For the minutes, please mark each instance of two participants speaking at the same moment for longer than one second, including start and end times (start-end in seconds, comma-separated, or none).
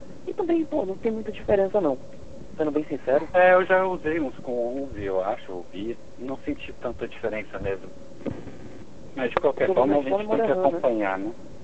9.6-10.8